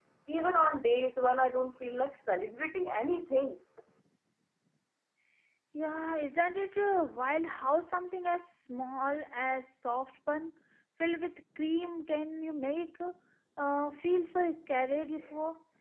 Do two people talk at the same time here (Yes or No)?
No